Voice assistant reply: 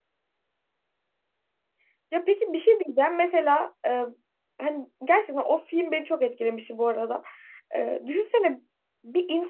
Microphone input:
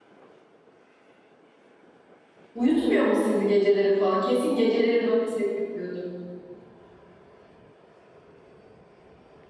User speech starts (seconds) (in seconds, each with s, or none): 2.5 s